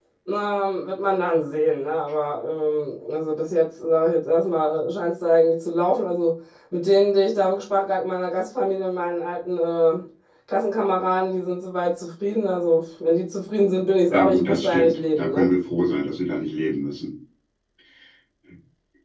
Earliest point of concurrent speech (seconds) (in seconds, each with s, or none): 14.1 s